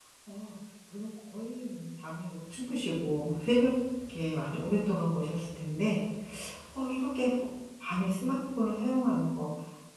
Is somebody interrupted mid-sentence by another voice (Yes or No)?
No